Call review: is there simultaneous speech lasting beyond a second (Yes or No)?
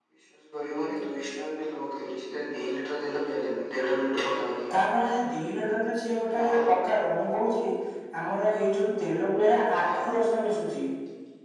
No